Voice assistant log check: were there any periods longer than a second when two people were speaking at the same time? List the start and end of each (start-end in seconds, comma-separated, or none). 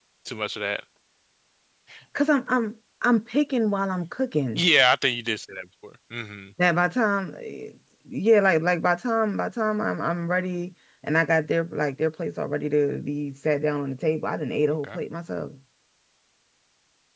none